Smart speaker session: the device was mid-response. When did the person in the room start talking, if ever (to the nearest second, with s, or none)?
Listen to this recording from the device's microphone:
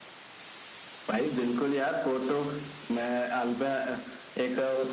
none